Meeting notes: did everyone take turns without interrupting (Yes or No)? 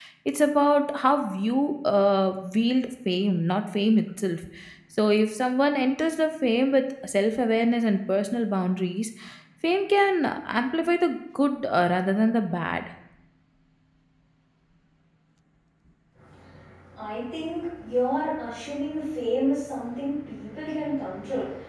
Yes